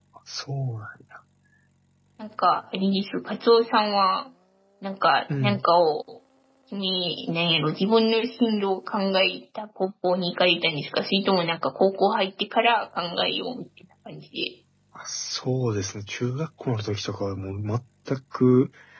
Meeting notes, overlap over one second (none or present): none